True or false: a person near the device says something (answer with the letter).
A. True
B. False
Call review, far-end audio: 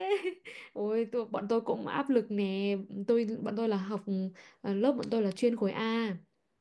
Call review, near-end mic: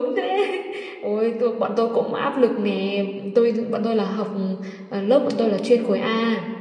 B